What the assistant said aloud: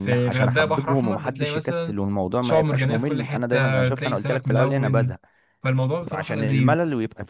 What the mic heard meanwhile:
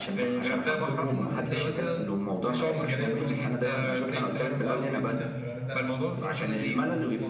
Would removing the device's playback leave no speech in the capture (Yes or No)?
No